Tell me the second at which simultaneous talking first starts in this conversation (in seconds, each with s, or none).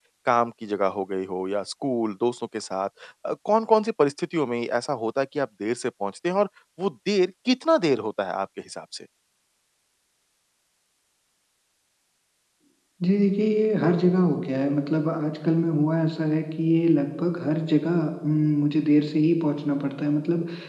none